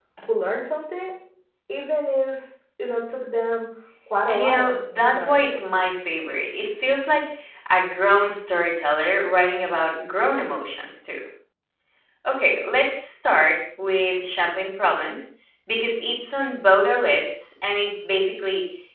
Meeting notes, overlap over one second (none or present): present